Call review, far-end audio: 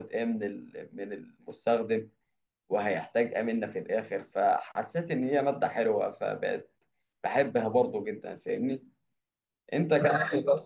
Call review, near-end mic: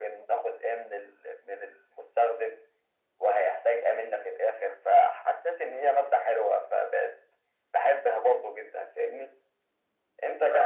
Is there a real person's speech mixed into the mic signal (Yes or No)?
No